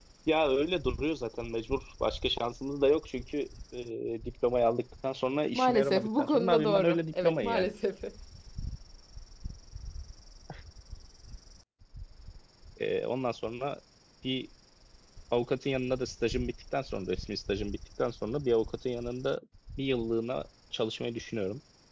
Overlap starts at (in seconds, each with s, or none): 5.5 s